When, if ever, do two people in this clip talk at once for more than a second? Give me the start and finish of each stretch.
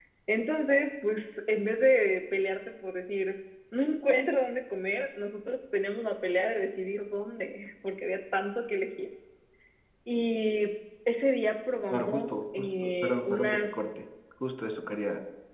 11.9-13.8

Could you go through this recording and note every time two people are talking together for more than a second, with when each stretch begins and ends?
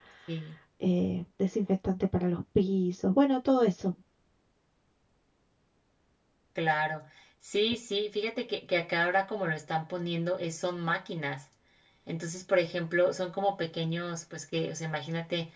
none

